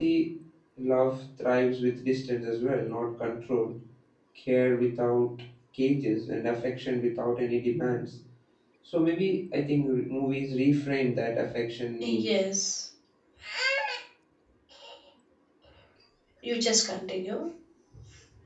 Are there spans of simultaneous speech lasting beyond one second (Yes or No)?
No